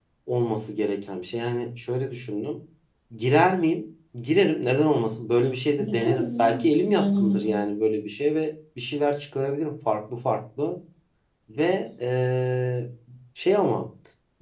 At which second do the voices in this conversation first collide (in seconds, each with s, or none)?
5.8 s